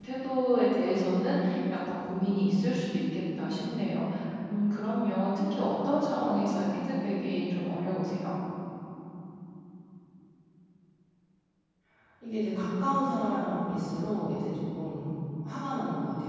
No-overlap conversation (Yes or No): Yes